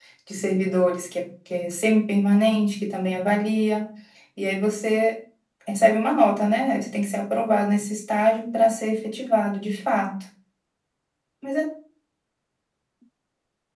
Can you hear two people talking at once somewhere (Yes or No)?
No